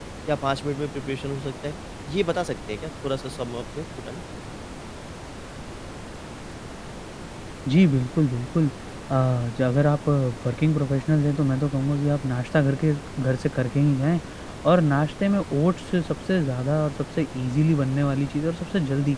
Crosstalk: none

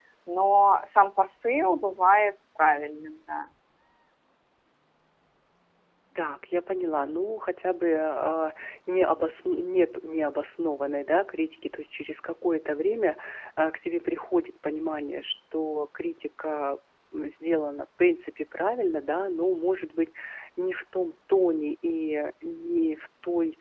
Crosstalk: none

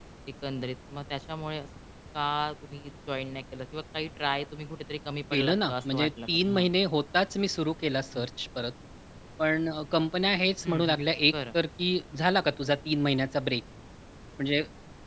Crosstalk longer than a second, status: present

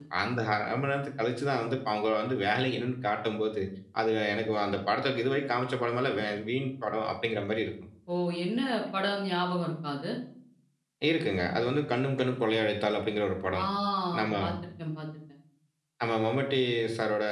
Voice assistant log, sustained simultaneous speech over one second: none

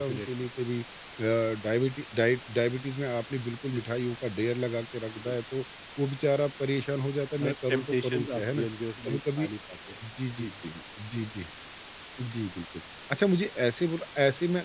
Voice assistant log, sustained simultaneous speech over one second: present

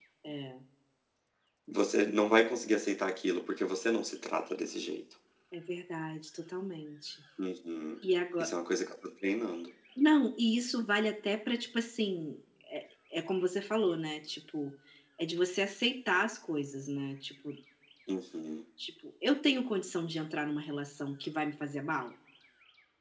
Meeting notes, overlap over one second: none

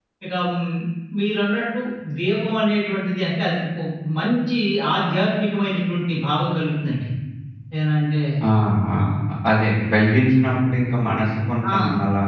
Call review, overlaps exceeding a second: none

